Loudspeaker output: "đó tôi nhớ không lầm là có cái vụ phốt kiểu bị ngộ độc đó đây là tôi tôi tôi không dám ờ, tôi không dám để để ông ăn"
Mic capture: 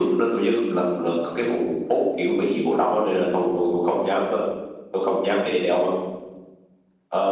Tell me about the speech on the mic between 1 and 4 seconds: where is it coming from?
echo only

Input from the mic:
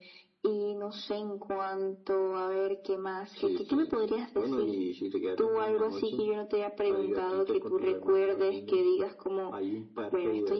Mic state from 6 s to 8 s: echo only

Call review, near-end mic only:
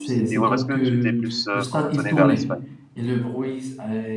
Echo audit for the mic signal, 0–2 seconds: both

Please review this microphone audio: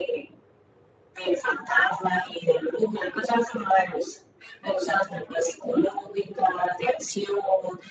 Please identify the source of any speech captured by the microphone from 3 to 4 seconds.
echo only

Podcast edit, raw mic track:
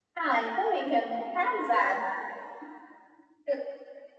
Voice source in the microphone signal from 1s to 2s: echo only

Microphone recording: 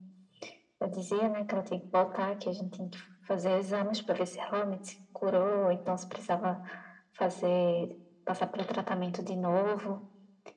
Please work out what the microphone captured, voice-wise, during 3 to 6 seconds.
echo only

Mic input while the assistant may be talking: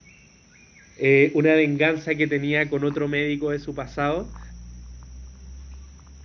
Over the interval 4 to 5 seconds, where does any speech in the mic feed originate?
user only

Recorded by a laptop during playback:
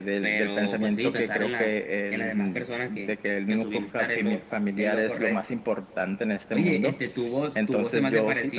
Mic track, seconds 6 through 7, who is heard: echo only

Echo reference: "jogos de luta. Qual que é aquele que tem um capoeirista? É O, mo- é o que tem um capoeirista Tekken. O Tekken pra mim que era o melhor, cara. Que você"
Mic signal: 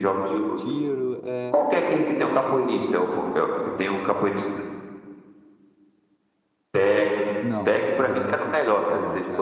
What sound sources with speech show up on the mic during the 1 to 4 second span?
both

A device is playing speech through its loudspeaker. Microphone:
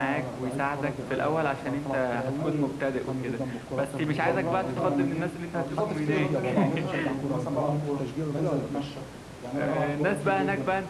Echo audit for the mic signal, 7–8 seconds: both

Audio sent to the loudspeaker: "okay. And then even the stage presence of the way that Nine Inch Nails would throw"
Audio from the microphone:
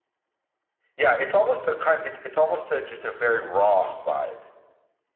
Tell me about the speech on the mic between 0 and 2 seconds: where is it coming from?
user only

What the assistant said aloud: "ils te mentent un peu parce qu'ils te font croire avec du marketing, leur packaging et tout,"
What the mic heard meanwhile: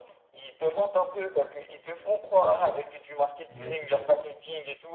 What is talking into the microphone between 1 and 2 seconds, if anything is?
echo only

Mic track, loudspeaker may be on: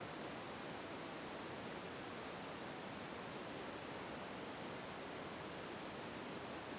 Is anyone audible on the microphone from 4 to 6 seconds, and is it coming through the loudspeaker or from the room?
neither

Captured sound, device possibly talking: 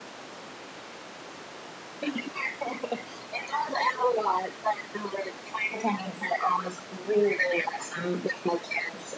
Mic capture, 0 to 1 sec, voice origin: neither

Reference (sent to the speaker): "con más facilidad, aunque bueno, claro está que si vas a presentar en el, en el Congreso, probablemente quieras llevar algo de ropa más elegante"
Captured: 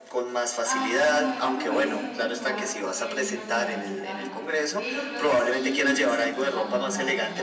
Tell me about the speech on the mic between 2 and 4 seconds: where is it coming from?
both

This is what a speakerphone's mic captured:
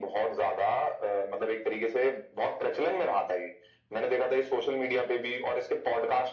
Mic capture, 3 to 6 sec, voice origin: echo only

